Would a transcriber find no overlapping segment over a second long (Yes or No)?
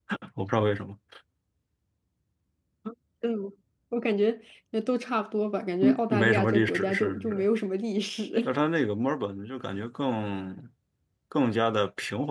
No